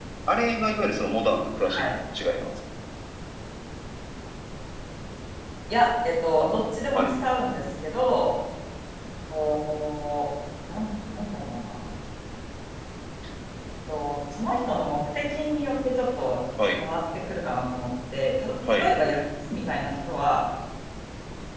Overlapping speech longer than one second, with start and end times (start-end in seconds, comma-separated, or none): none